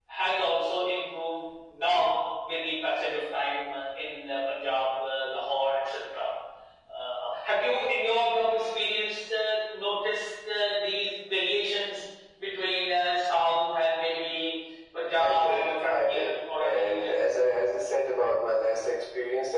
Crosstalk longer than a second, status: present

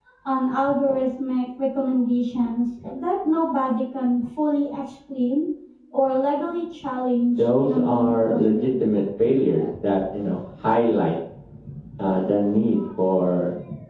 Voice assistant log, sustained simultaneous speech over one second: present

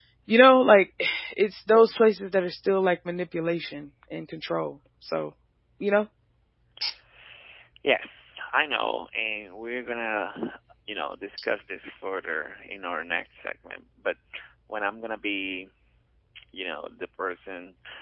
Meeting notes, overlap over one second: none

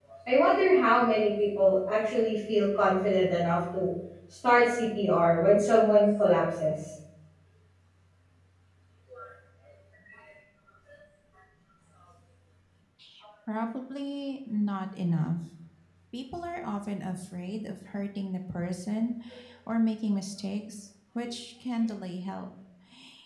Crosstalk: none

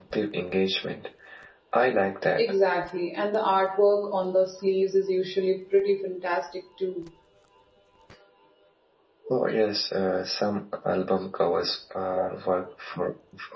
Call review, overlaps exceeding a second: none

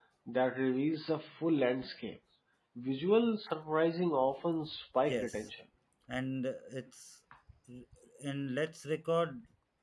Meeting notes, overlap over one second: none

